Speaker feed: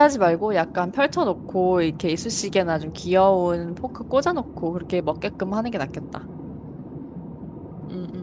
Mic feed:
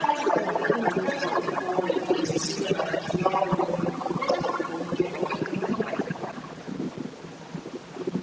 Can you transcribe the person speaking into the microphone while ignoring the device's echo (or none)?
어, 그러면 좋을 것 같아.